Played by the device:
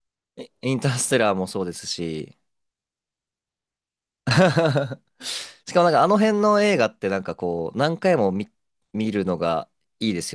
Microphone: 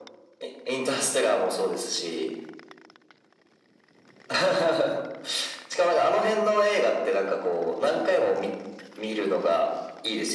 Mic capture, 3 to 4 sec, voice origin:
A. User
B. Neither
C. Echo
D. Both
B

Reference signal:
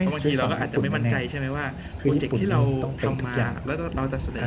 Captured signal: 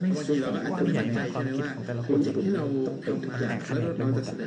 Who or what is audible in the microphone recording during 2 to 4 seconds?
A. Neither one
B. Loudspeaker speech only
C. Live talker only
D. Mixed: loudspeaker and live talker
D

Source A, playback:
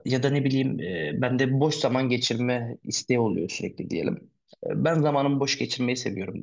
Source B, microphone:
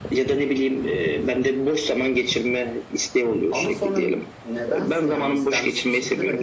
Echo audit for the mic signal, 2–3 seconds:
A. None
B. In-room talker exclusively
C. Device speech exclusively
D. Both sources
C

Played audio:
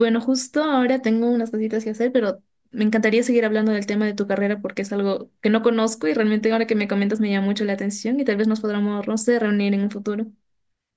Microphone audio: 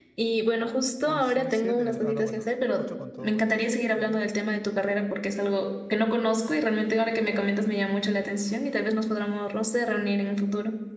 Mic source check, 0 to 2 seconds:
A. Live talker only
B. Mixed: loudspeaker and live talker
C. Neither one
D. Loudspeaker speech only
B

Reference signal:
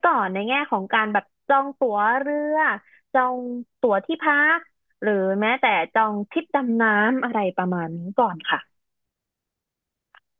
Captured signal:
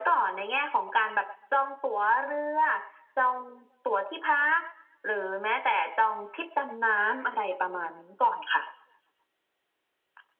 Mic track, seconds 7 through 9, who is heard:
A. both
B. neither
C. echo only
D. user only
C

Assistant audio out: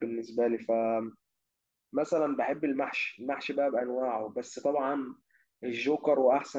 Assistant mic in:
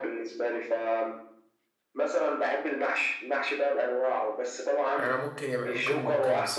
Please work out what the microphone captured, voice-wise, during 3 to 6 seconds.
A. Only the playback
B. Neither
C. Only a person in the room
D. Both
D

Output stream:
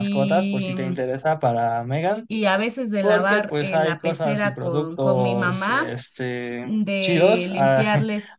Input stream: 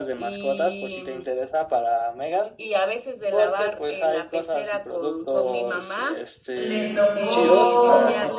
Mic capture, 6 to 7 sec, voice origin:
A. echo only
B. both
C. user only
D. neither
B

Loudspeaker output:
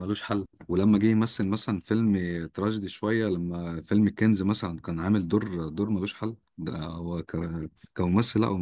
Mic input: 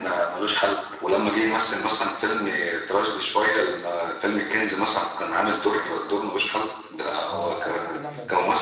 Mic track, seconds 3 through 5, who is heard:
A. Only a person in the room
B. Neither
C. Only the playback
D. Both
C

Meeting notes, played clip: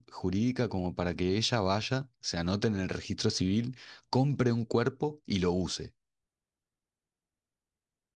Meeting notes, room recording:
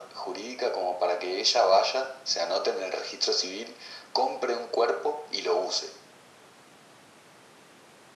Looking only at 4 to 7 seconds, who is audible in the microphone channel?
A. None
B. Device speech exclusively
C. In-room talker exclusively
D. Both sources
B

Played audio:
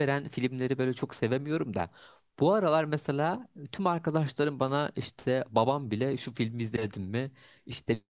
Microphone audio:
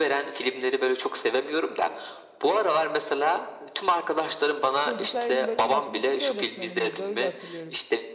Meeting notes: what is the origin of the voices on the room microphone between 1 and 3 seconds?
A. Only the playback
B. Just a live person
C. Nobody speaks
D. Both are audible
A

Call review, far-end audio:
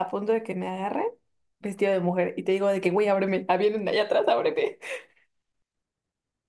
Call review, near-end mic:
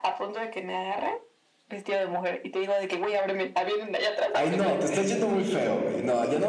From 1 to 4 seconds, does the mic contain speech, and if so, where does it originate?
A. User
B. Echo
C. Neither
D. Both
B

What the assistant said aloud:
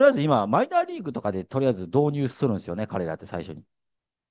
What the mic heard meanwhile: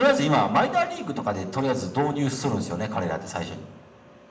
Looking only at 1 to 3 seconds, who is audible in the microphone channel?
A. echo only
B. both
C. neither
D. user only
A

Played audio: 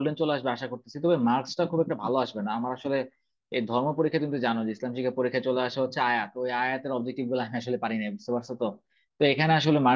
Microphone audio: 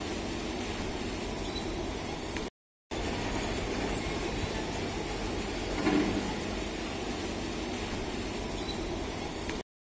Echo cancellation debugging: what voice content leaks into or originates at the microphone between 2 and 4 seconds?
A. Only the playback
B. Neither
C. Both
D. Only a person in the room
B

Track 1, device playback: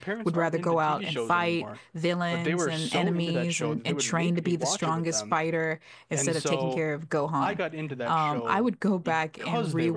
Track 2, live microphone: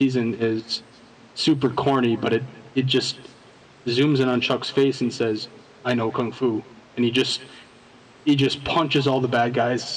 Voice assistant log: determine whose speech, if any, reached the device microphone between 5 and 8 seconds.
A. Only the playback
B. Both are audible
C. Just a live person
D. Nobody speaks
C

